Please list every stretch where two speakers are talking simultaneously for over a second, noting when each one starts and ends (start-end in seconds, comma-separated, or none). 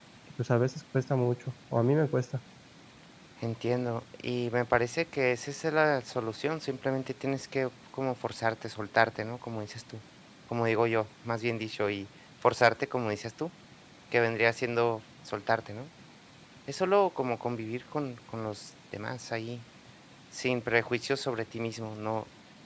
none